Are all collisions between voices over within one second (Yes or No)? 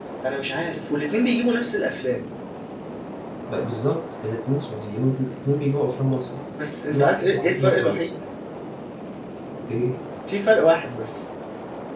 No